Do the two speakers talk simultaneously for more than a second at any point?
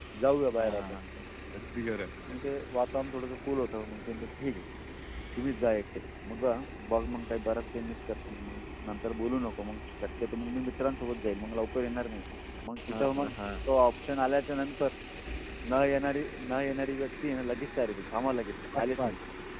No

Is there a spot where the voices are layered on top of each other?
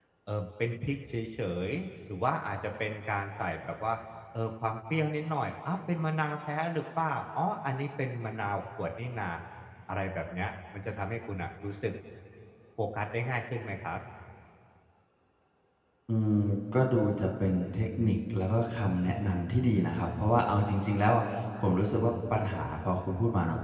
No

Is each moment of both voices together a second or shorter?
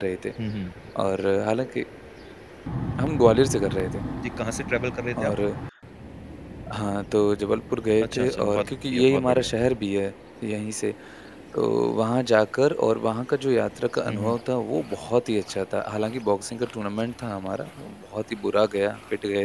No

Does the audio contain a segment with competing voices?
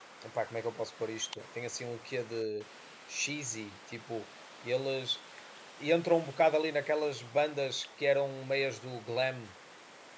No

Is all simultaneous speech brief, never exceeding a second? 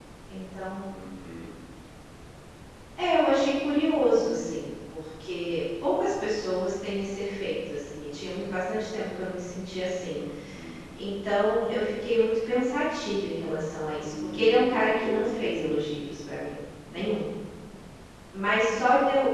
No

